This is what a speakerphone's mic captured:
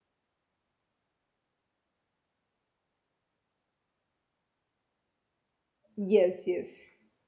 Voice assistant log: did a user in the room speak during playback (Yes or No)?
Yes